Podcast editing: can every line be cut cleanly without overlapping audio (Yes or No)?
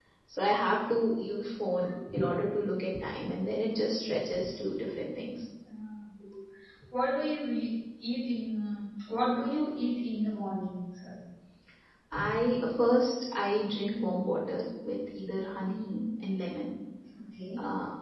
Yes